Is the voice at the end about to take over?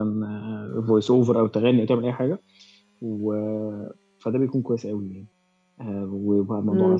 Yes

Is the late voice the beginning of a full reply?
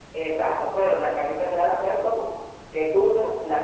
No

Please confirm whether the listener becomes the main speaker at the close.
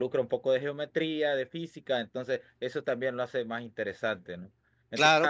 Yes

